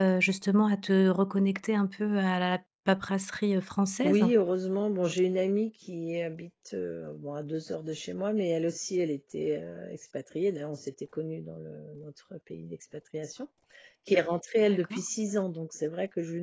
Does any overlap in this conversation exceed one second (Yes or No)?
No